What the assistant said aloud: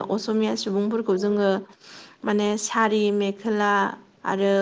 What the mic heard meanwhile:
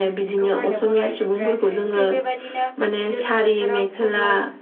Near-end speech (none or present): present